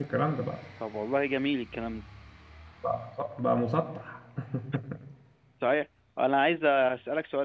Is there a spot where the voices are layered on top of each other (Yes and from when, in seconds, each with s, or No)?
No